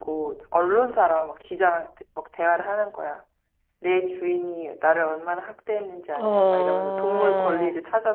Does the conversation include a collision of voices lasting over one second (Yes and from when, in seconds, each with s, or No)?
Yes, from 6.2 s